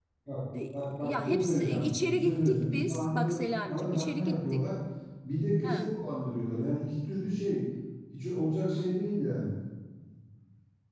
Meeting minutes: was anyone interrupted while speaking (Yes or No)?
Yes